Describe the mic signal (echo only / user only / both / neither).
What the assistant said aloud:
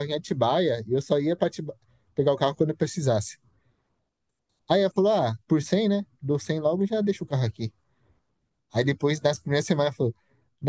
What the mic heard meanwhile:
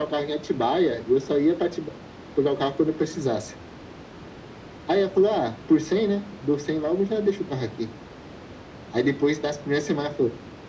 echo only